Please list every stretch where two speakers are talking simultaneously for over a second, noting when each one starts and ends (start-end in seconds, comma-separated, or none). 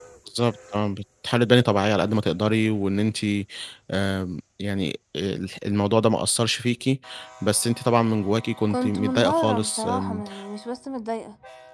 8.7-10.2